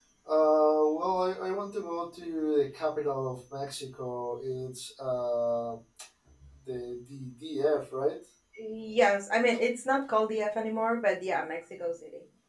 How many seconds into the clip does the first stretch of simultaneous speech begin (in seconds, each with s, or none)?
none